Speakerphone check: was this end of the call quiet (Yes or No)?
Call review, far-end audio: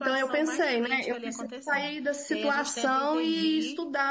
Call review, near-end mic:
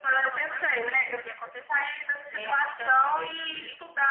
Yes